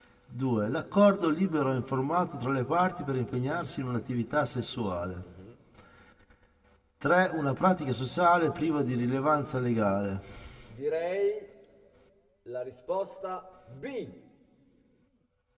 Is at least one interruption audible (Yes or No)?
No